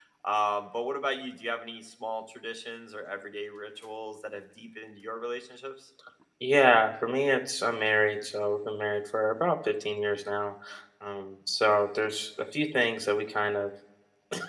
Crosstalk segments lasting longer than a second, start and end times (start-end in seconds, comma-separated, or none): none